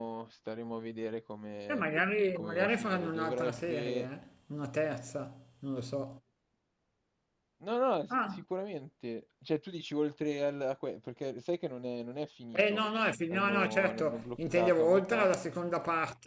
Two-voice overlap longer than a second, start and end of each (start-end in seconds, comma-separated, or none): 2.4-4.1, 13.3-15.3